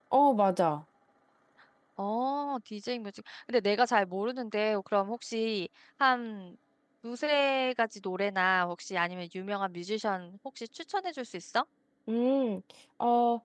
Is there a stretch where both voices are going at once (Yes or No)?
No